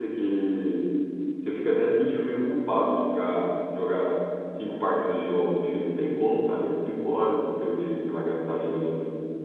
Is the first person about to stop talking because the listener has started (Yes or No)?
No